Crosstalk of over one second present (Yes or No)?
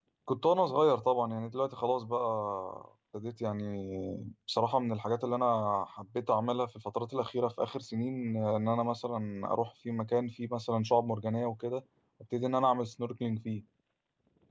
No